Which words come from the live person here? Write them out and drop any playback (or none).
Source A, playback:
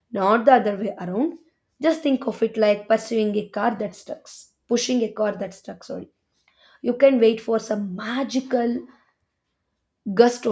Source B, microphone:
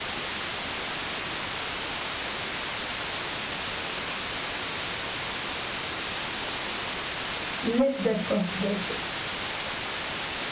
lift that first weight.